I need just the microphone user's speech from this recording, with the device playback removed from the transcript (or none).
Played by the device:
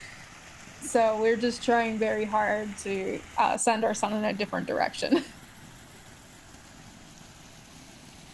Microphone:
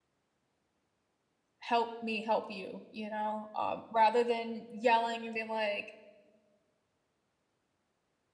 help me help you, you know? Um, rather than yelling and being like,